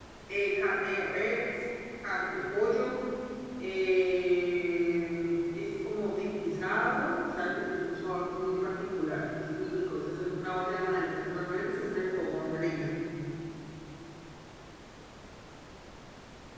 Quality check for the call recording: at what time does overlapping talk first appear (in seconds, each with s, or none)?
none